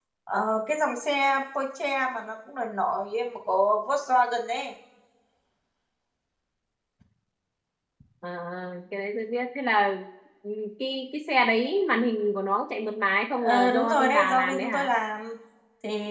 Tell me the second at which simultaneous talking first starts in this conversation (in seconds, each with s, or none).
13.3 s